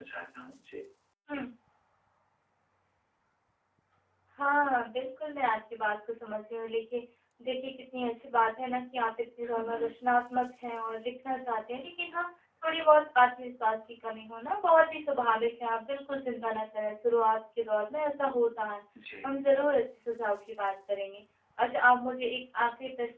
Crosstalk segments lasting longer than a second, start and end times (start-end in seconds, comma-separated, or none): none